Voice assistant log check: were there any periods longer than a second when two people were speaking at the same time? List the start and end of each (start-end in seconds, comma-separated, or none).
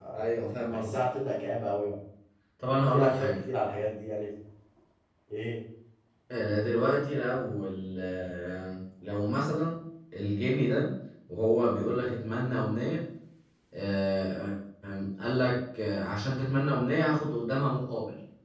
none